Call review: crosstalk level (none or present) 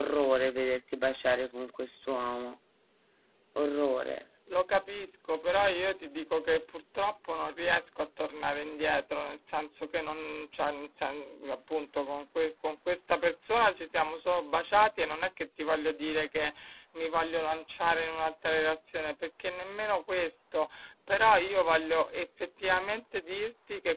none